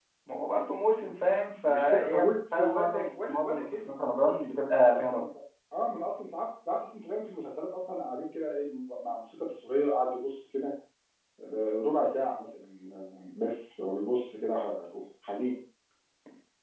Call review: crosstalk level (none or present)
present